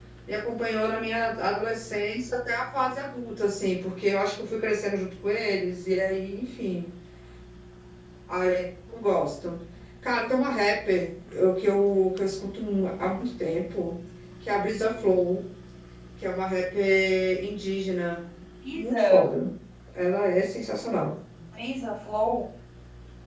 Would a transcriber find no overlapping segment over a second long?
Yes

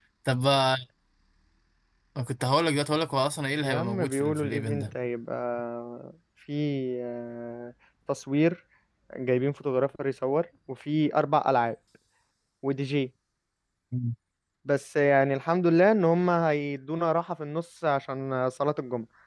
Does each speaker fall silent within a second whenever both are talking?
No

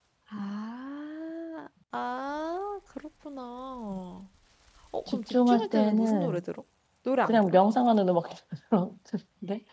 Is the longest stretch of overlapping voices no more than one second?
No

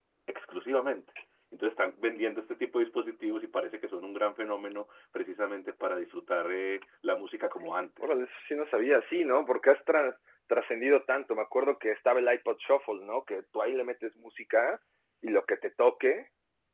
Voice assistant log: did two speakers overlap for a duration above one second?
No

